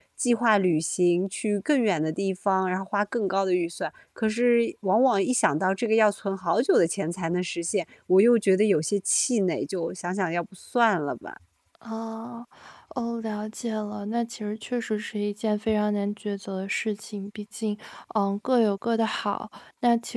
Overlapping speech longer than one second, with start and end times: none

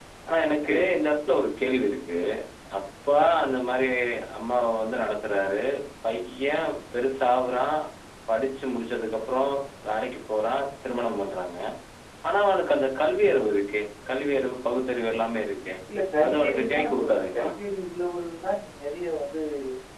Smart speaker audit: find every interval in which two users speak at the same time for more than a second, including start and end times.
16.2-17.5

